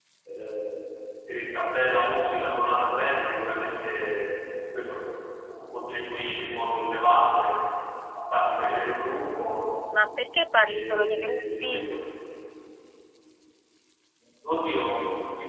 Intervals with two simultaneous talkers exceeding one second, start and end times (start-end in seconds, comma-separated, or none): 10.7-11.9